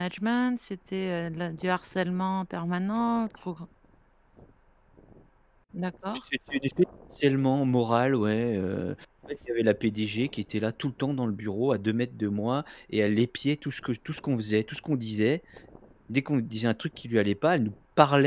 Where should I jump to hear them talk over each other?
none

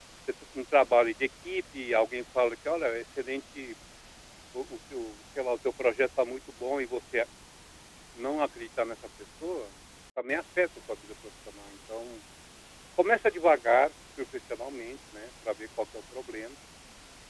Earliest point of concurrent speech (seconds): none

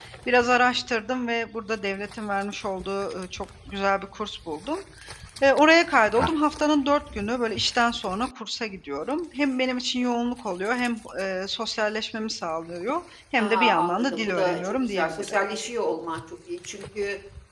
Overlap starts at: 13.4 s

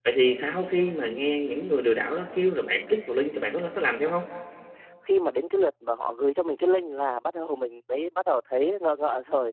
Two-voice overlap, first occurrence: none

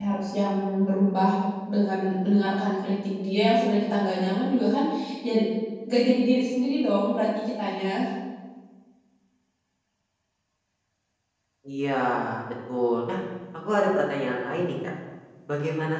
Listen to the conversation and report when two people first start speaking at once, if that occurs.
none

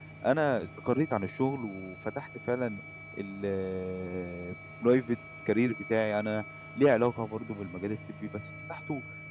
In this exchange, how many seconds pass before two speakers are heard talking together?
none

